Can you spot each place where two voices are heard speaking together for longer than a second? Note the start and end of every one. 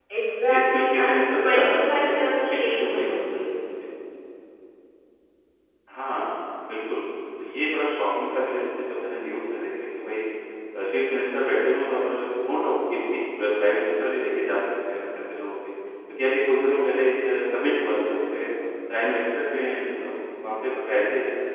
0.5-3.4

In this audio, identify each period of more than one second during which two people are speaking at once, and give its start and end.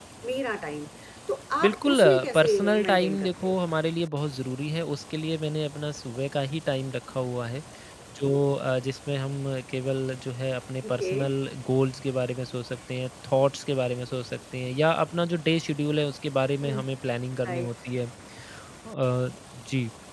1.6-3.5

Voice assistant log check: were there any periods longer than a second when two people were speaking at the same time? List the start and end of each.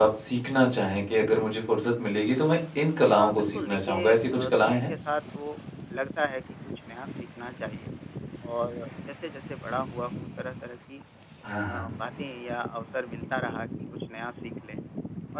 3.1-4.9

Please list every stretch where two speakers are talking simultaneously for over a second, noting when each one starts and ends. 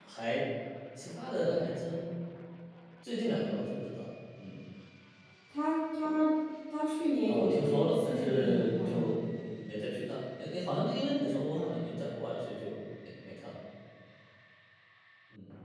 7.3-9.1

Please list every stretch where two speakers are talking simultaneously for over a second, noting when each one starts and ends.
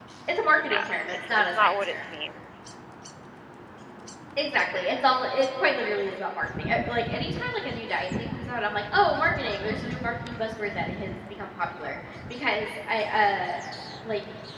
0.7-2.0

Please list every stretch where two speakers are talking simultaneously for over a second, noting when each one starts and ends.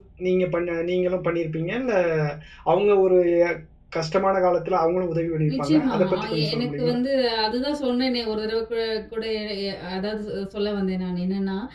5.5-7.0

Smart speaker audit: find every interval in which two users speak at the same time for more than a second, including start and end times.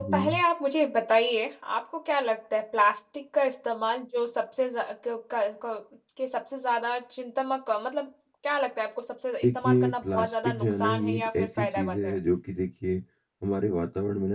9.4-12.2

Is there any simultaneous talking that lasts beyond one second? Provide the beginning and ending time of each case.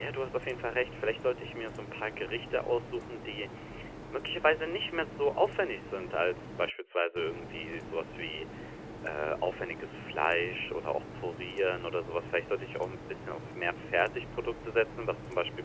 none

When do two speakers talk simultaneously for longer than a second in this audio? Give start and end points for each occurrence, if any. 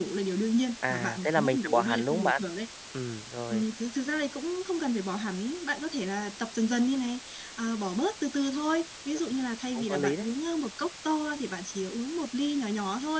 0.9-2.4

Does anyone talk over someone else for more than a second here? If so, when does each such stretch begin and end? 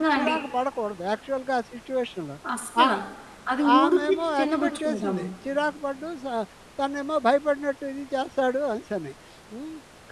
3.8-5.2

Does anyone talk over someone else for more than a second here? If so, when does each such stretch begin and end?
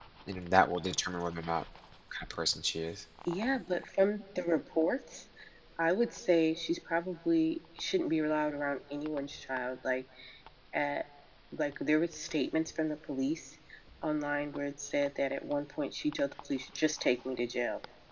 none

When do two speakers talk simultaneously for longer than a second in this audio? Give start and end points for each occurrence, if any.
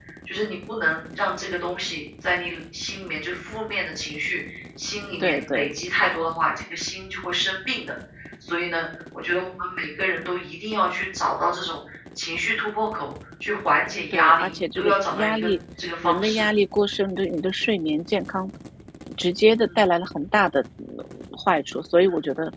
14.1-15.5

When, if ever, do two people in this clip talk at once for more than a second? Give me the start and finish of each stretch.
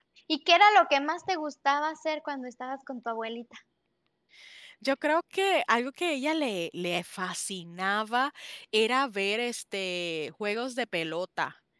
none

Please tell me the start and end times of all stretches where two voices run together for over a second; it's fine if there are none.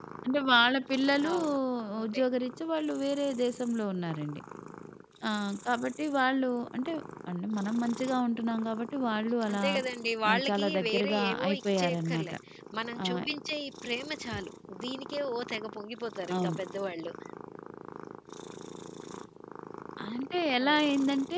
10.3-12.3

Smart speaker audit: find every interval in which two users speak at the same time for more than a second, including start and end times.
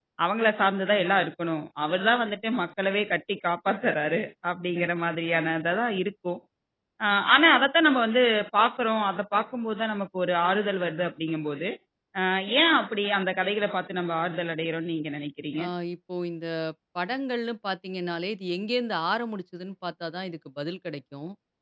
none

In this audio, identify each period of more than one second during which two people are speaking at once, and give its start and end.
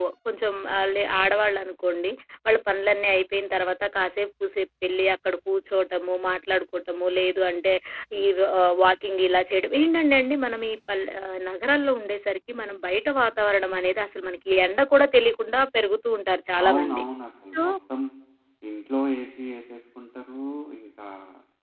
none

